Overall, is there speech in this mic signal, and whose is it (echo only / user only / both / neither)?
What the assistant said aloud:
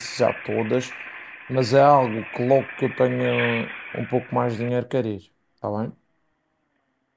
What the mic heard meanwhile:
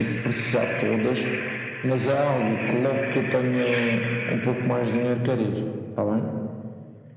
echo only